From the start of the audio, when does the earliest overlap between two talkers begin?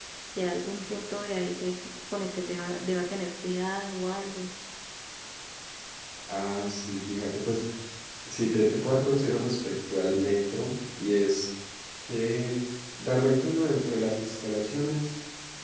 none

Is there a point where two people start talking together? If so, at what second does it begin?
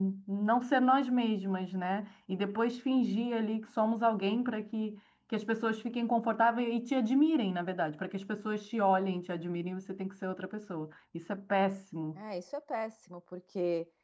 none

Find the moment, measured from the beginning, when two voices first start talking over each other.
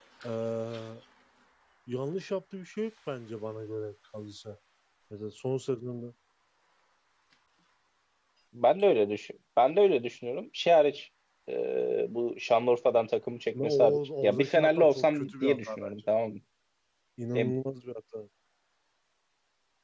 14 s

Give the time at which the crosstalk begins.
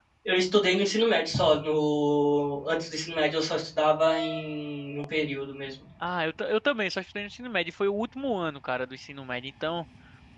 none

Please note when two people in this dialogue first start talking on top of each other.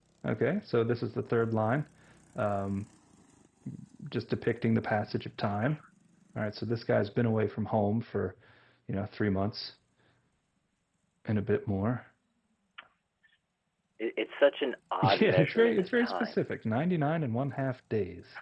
15 s

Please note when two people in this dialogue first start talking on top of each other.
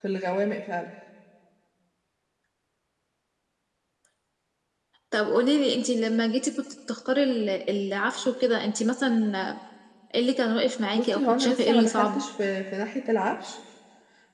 11 s

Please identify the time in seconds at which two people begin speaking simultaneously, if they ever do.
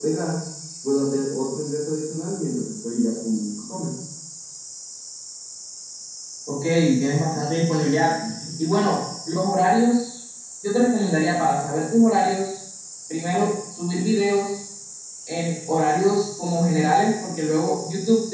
none

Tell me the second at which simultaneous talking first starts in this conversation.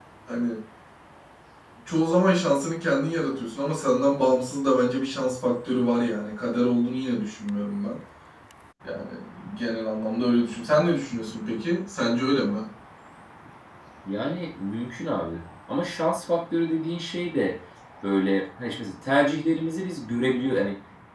none

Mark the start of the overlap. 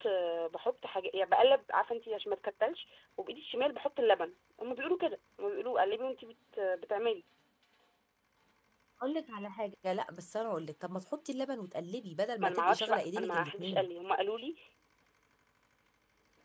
12 s

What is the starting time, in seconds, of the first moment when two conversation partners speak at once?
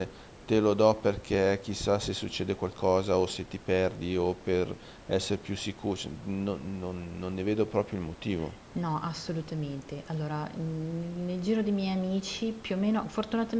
none

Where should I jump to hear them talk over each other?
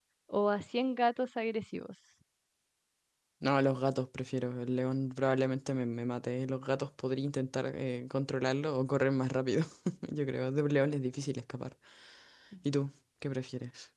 none

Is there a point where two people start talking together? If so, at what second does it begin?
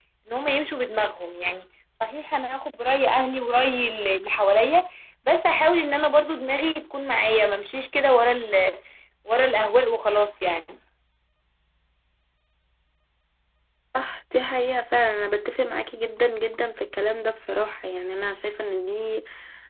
none

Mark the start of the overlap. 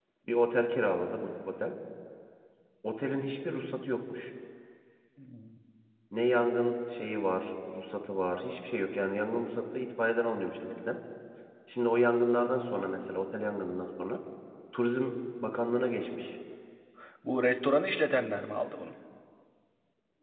none

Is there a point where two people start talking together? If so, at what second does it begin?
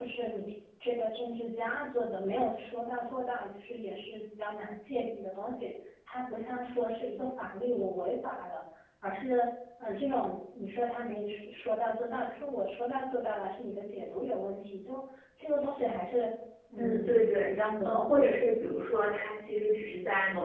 17 s

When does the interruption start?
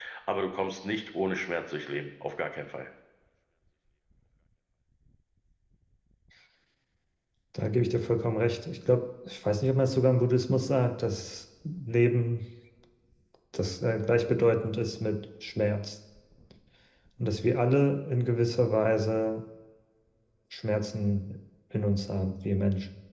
none

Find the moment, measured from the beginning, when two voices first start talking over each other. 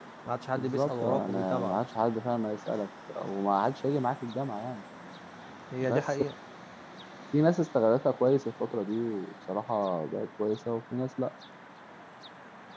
1 s

